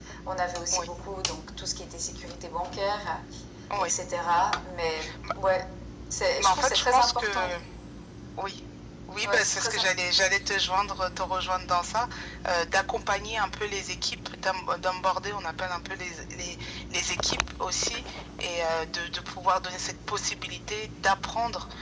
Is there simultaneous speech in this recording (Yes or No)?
Yes